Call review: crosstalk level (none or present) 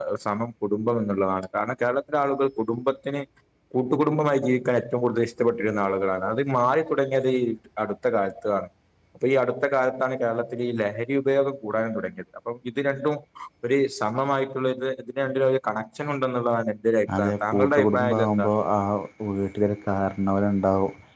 present